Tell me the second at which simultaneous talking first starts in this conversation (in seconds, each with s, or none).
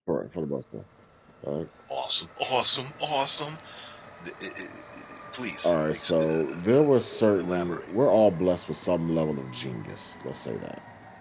5.6 s